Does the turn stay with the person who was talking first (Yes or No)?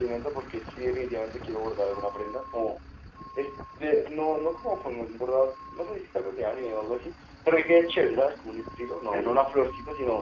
Yes